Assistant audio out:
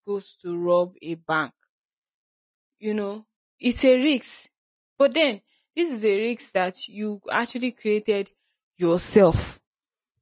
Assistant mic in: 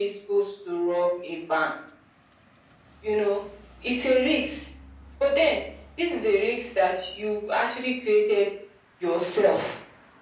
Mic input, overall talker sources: echo only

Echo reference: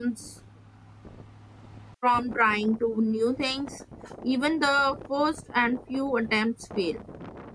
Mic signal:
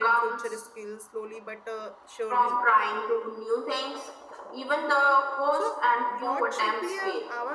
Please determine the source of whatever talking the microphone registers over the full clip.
both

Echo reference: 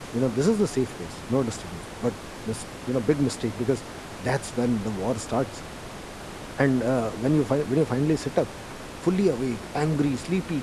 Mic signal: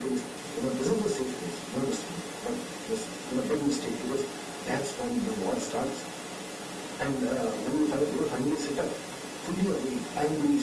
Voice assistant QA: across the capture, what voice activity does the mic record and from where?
echo only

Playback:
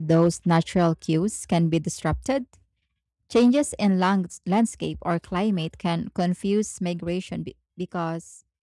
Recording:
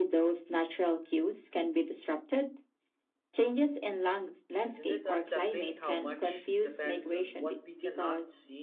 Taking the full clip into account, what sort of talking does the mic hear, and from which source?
both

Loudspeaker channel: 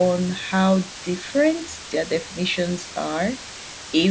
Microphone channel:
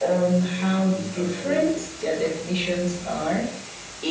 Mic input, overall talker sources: both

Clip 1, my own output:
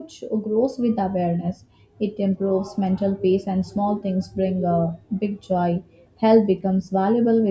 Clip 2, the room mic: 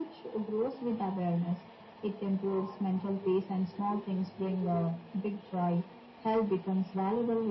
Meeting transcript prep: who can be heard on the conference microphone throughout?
echo only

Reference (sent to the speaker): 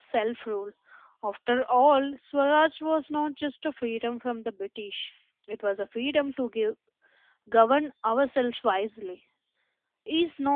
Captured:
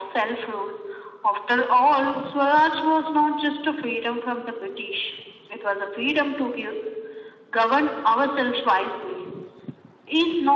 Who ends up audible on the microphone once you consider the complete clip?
echo only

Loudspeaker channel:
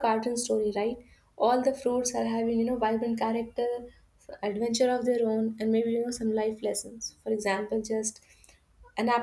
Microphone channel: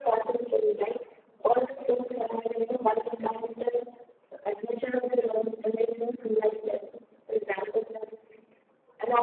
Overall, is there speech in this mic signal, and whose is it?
echo only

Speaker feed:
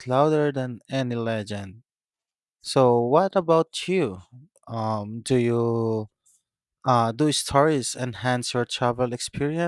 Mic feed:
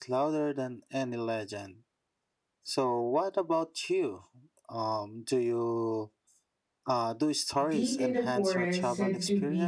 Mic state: both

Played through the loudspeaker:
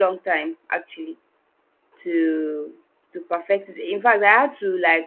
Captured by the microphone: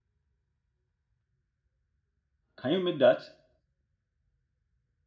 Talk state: user only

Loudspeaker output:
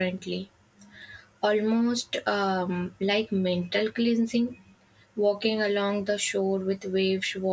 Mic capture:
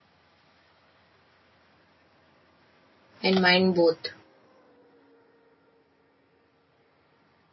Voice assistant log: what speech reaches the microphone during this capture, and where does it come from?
user only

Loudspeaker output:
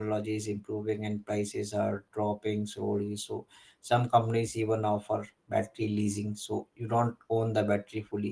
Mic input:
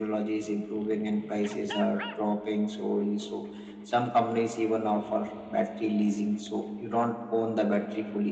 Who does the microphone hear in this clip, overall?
echo only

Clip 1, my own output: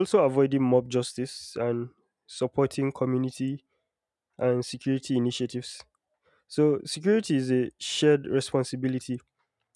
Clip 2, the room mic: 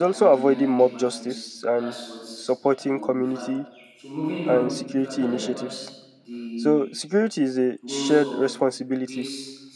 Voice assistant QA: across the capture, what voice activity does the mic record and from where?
both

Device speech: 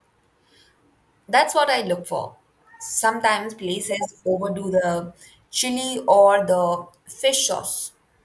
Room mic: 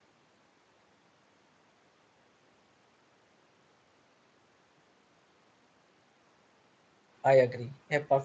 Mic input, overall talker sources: user only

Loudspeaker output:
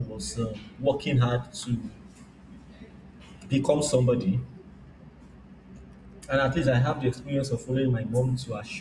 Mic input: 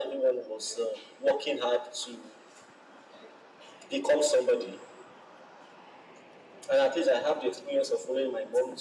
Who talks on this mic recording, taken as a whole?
echo only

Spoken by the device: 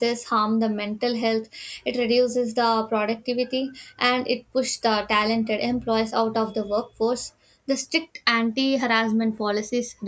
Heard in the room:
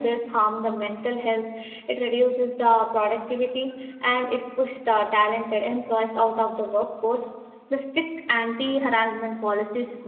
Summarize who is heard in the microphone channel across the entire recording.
echo only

